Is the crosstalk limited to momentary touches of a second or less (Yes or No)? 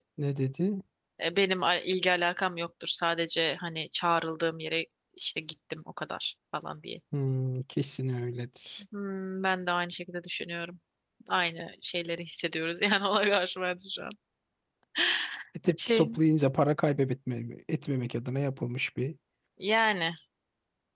Yes